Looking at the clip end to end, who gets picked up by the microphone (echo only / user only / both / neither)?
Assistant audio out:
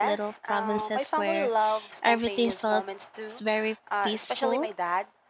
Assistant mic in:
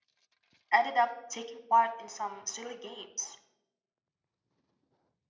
user only